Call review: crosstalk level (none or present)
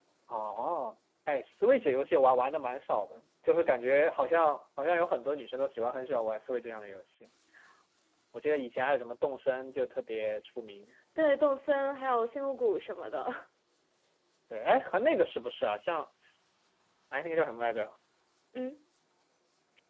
none